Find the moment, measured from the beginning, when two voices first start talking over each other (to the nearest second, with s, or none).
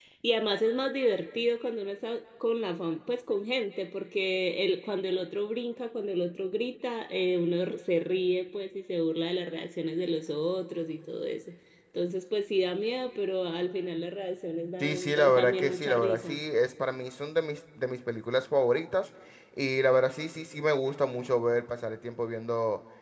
15 s